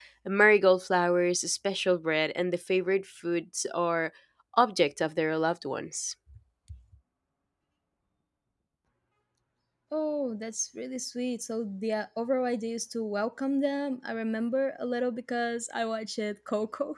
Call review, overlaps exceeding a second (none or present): none